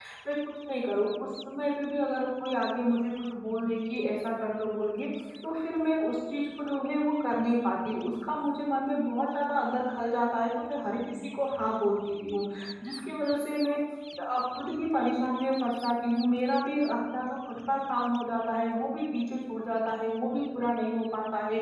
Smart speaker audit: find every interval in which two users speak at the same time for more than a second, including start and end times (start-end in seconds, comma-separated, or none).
none